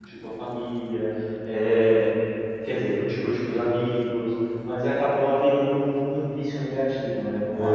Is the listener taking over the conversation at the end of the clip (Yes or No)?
Yes